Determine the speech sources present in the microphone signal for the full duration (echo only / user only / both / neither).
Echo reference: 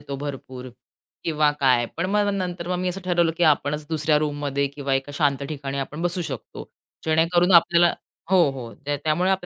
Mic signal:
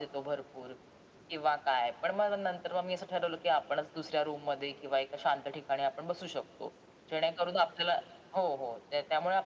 echo only